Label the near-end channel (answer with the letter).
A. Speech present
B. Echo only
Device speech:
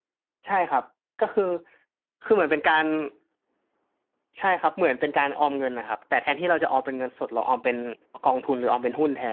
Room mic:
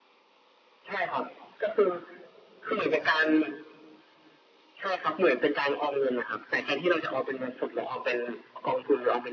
B